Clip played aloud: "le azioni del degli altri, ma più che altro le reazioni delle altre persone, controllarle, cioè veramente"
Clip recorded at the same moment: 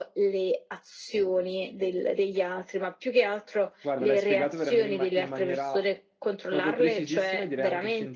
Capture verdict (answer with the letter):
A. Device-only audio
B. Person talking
B